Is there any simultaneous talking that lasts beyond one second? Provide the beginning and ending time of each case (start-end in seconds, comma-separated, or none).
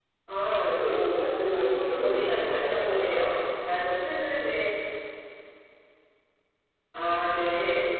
0.7-3.4